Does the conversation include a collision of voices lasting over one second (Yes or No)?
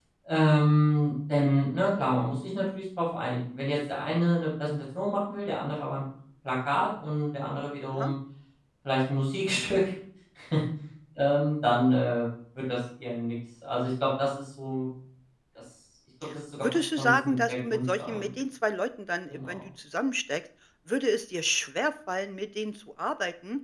Yes